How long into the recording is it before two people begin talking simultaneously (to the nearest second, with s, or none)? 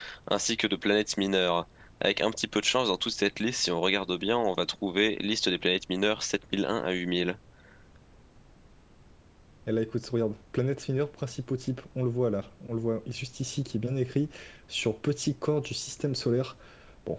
none